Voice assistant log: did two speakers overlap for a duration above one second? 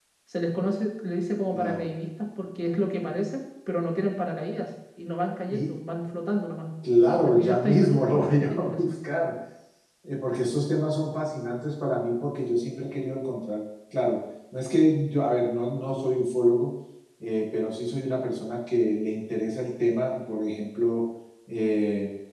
Yes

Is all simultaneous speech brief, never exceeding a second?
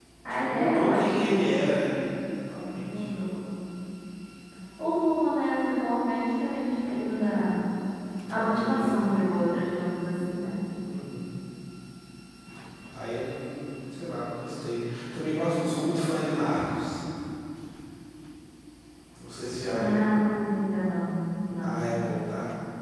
No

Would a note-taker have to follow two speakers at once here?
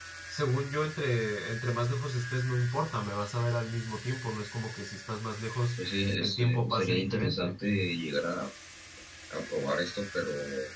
Yes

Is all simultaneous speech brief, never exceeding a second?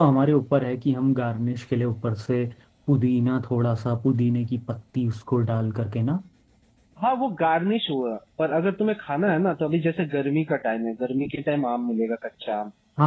Yes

